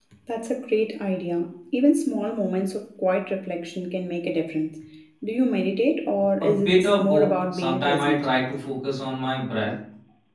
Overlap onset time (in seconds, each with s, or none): 6.4 s